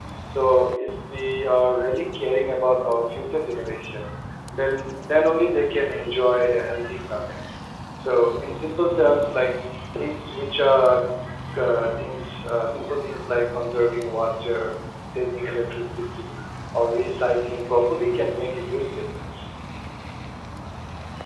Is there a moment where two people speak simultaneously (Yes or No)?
No